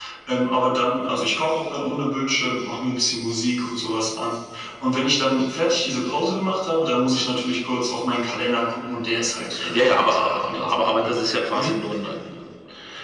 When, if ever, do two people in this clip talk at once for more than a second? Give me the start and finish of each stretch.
9.7-11.1

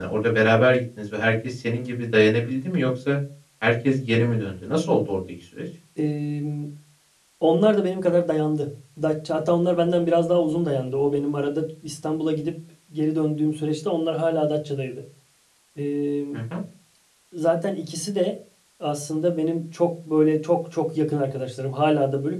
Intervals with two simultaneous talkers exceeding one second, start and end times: none

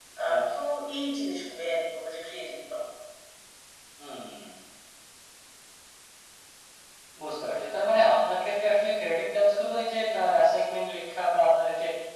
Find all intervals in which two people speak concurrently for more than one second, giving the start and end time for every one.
none

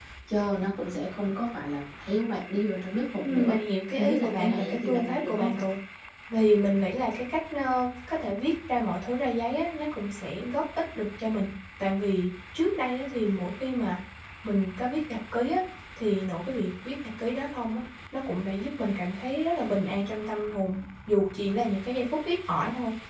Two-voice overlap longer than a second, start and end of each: 4.0-5.5

